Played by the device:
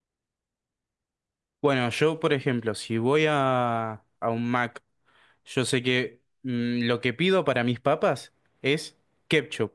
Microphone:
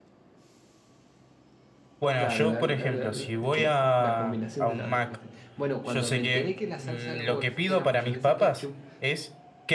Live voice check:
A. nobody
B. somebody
B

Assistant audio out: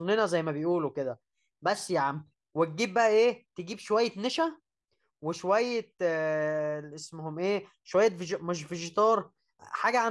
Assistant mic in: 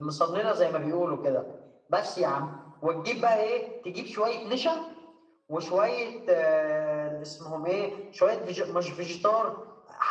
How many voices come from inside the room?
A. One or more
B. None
B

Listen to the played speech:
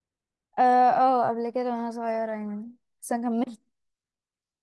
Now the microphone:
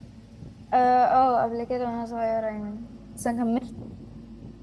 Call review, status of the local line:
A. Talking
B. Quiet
B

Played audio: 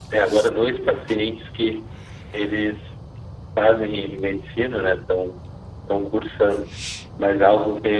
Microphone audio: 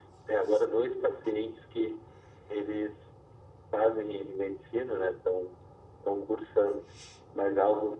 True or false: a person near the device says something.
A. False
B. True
A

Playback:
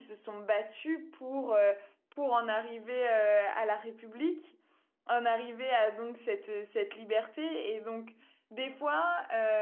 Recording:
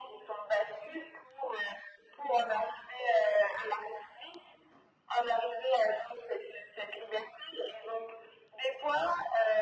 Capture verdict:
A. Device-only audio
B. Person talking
A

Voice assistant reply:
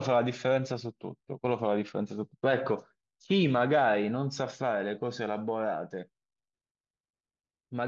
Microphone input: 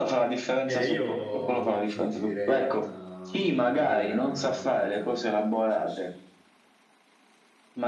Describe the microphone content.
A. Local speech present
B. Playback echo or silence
A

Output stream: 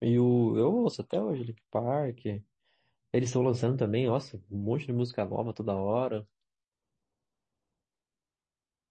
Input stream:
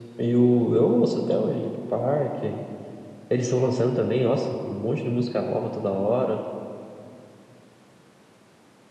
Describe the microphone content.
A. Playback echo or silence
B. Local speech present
A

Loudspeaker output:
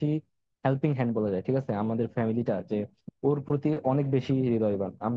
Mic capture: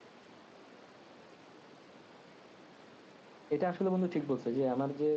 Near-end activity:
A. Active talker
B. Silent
A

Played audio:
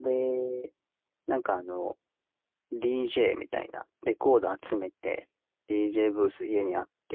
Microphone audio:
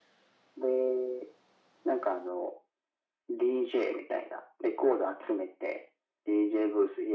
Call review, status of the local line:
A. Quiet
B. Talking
A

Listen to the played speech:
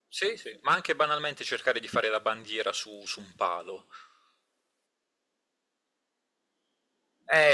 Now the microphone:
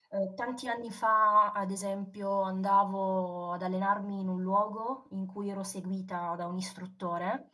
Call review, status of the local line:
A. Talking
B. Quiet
A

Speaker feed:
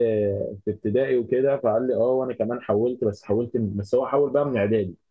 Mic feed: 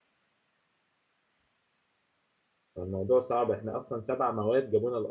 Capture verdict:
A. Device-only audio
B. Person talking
B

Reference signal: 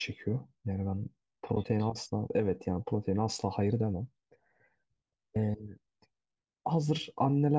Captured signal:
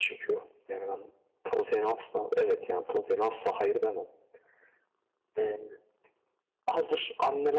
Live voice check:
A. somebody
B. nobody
B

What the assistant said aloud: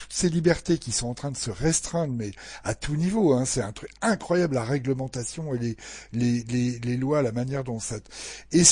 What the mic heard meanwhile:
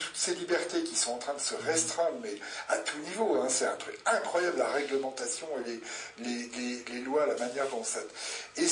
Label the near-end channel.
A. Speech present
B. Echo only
A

